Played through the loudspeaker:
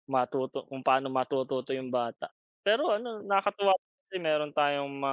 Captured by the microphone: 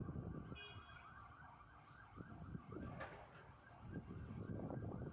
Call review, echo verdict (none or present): none